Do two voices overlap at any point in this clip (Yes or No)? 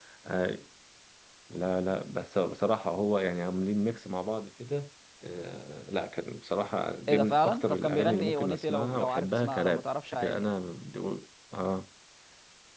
Yes